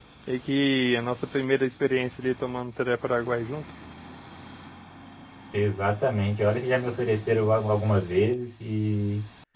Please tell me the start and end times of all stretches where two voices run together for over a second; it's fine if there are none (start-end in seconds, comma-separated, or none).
none